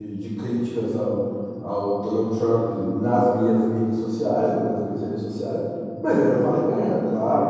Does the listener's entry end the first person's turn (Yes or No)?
No